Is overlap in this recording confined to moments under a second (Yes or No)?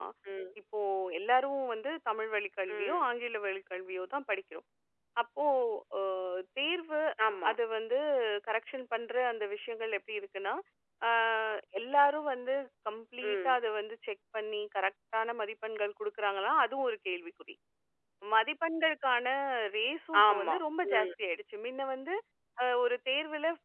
Yes